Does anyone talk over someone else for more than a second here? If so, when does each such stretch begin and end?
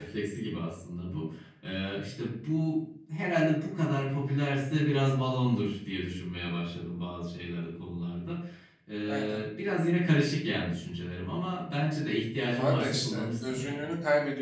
12.4-13.9

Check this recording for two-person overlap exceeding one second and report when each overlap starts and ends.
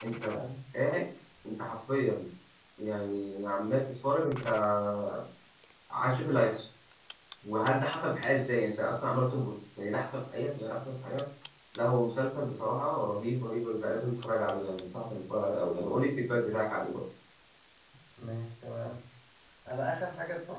none

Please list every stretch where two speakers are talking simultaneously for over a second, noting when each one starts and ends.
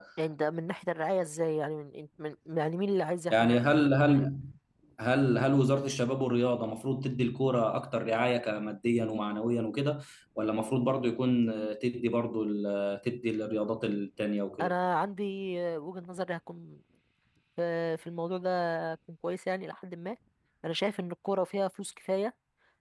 none

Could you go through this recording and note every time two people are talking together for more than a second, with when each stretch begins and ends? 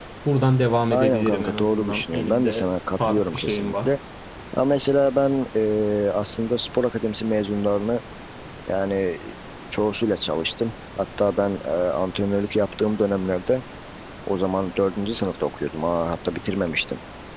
0.9-3.9

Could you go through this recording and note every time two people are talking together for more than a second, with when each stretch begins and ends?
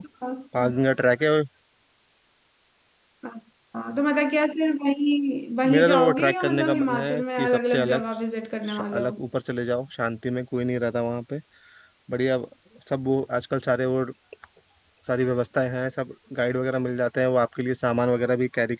5.7-8.0

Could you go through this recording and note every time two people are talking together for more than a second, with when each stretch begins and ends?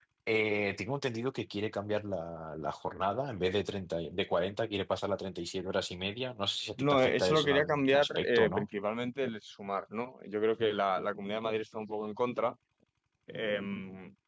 6.8-8.7

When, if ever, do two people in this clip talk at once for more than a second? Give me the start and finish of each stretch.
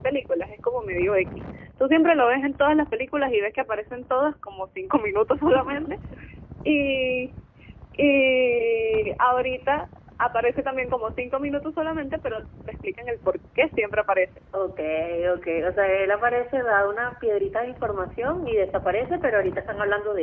none

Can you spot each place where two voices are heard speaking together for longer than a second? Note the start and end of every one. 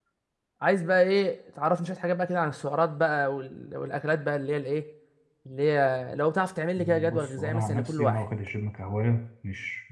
6.8-8.2

